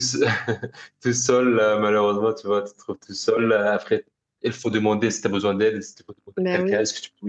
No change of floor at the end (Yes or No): Yes